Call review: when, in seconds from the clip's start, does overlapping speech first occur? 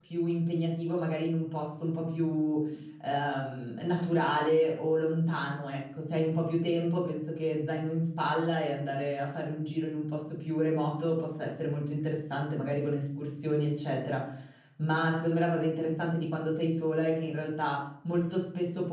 none

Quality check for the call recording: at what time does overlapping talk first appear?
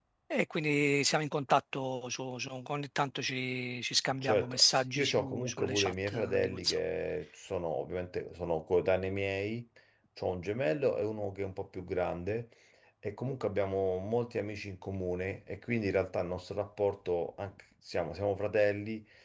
4.2 s

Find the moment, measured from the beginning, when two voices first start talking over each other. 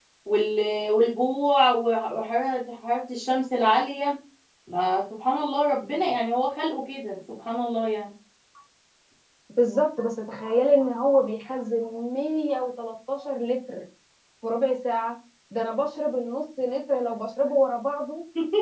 none

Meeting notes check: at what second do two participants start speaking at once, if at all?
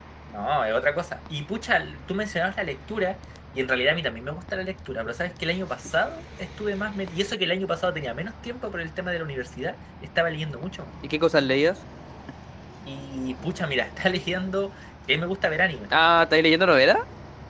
none

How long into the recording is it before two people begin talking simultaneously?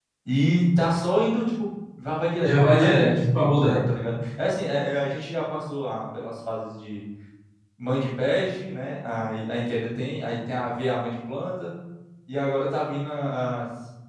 2.4 s

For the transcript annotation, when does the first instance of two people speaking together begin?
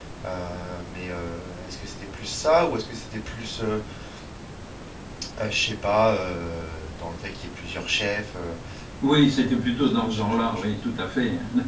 9.1 s

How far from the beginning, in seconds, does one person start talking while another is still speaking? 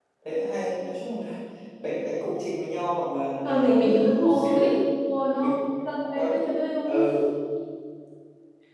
3.4 s

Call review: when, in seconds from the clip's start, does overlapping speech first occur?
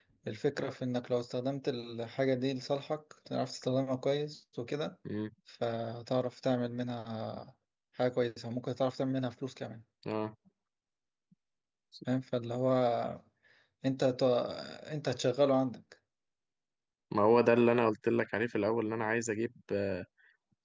none

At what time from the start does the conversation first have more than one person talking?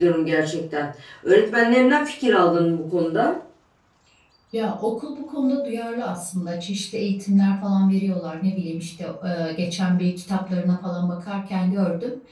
none

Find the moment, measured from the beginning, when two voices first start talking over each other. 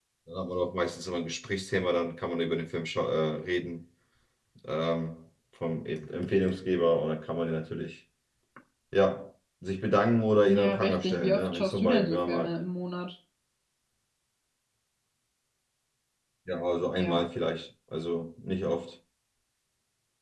10.5 s

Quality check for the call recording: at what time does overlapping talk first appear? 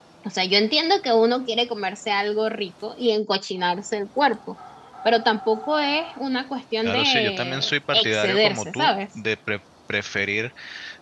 6.8 s

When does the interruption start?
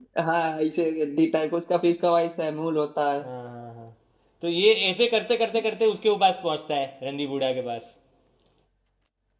none

